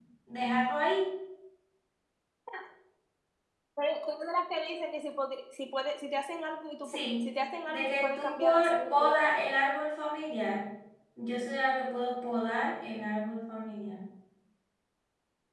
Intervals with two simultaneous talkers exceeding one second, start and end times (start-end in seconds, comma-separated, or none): 7.7-9.5